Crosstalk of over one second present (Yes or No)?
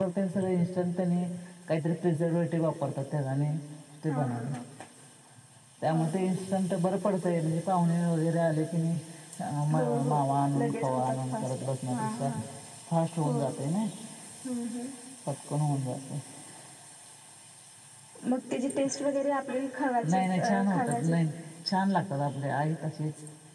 Yes